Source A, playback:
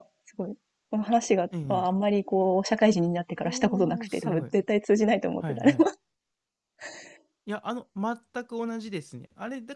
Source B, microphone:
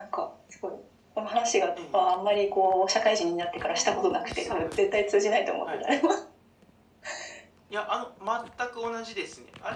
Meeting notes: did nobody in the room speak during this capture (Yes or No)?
Yes